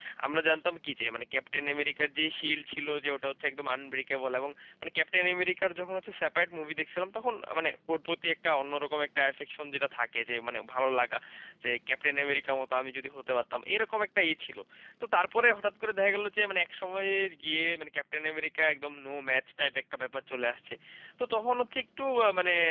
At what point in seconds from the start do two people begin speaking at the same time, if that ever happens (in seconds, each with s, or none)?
none